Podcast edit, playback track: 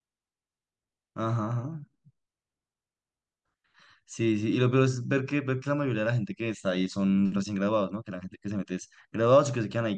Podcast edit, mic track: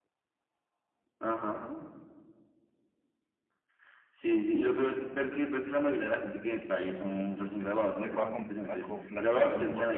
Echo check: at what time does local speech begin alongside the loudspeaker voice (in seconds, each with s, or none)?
7.9 s